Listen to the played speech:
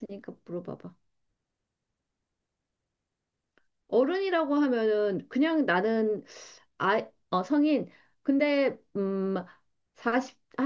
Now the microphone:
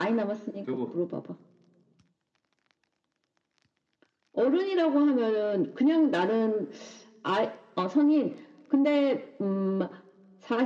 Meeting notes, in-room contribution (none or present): present